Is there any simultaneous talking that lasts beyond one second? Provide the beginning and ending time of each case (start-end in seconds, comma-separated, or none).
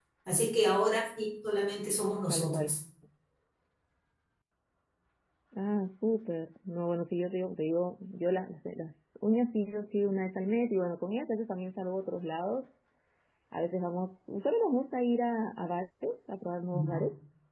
none